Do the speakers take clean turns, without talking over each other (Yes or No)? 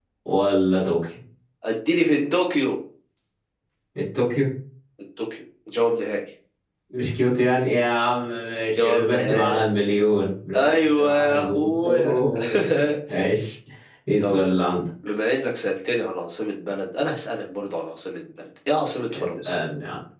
No